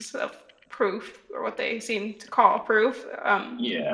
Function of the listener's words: taking over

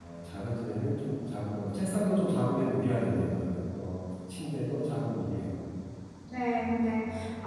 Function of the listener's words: taking over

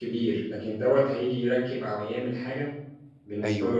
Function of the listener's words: taking over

